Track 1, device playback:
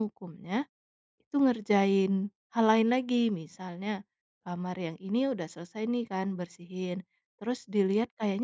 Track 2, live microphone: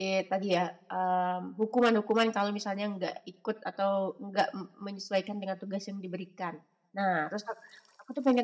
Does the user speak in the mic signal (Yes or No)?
Yes